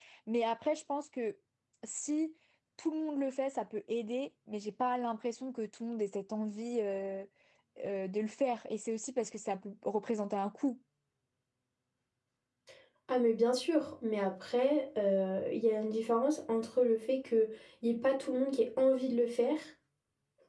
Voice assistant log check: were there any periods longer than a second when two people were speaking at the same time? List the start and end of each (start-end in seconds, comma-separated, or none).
none